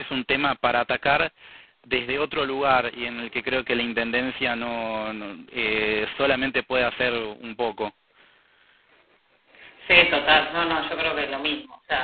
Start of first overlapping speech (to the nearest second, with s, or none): none